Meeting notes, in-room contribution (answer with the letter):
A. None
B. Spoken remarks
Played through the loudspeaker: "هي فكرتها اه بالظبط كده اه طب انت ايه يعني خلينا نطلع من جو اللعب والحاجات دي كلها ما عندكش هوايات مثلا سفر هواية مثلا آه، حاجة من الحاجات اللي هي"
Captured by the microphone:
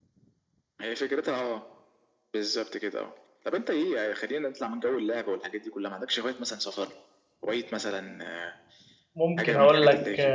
B